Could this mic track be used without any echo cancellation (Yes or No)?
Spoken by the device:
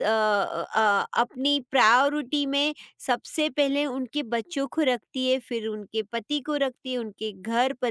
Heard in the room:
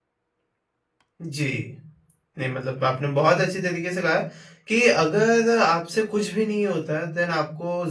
Yes